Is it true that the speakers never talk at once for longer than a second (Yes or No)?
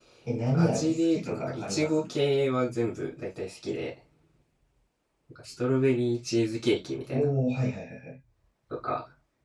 No